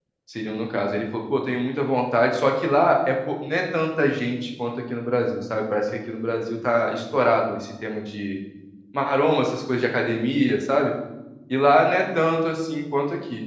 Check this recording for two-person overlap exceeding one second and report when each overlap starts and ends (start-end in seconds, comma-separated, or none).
none